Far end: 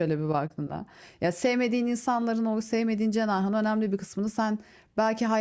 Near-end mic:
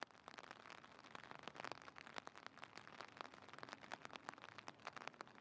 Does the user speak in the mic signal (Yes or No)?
No